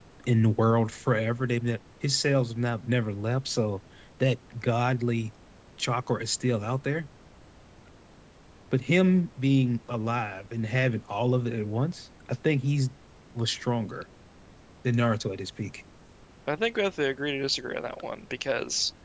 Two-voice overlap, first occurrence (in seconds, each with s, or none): none